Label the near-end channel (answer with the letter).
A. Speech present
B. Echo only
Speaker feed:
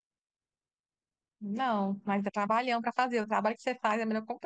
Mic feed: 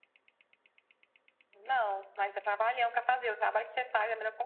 B